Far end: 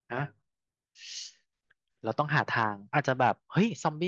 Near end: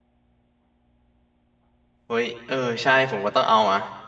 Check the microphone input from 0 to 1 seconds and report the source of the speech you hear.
neither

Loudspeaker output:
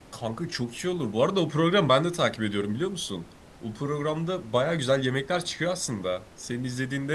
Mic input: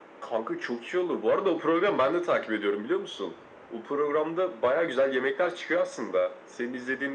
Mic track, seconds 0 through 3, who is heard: echo only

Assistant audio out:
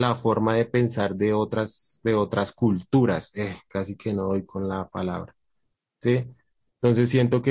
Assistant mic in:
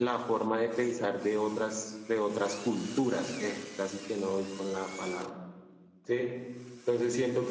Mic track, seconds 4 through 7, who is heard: echo only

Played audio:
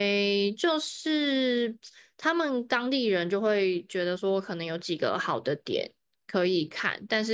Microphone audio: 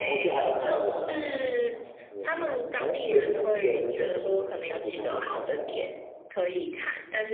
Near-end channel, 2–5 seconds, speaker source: both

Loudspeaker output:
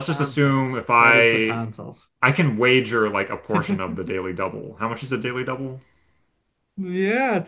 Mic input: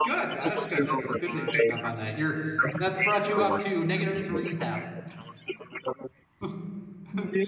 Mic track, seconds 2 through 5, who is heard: both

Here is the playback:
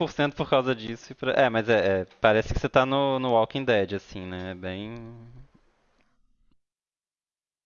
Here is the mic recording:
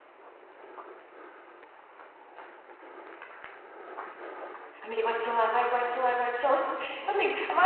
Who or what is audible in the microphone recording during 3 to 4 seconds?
neither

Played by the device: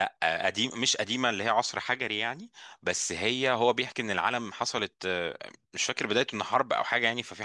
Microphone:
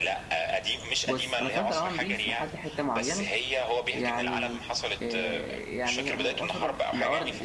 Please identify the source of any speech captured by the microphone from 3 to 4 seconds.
both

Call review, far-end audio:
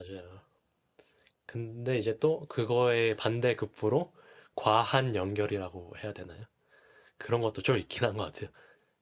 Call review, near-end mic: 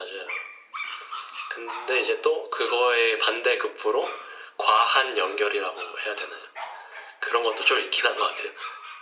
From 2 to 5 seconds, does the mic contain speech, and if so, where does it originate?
echo only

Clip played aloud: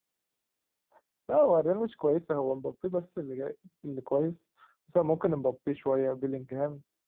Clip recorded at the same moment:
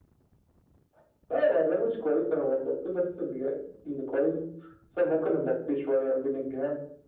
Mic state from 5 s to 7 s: echo only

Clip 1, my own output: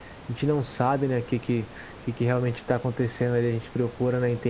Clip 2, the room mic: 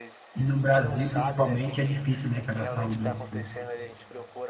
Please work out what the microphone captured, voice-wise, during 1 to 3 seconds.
both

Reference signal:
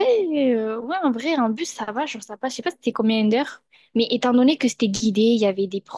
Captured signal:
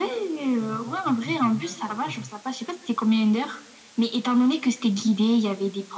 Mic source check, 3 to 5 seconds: echo only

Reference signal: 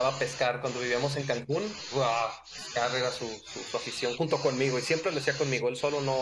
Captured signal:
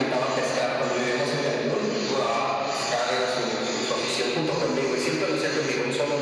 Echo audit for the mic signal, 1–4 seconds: echo only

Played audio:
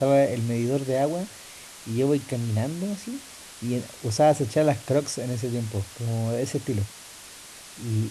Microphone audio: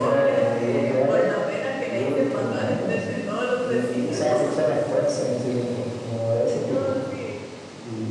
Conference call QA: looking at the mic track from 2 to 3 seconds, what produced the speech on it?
both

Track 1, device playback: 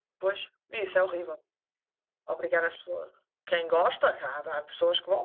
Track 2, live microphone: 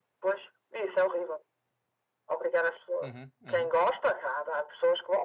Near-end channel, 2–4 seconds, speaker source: both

